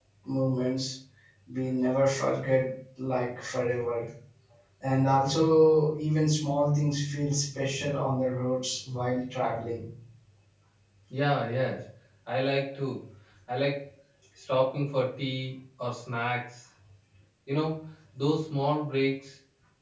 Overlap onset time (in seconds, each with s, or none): none